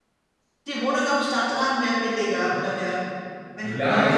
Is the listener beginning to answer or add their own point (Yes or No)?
Yes